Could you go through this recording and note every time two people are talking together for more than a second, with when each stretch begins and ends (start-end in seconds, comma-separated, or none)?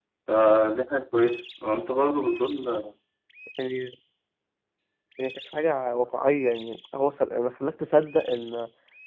none